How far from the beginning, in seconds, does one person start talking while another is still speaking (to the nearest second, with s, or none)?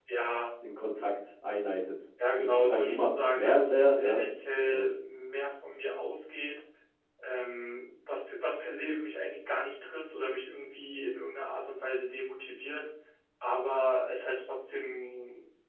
2 s